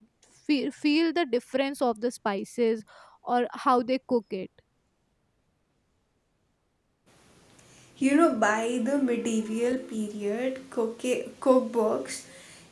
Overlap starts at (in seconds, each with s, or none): none